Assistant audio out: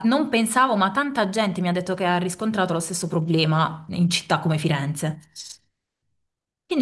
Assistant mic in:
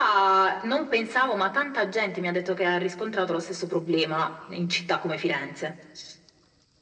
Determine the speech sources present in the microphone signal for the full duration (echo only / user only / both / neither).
echo only